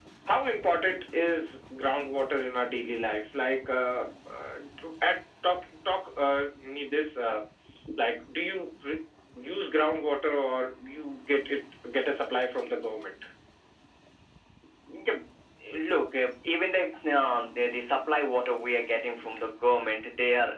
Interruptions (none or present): none